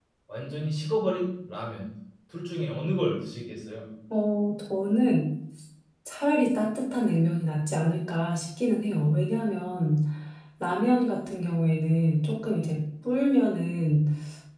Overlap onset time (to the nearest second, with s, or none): none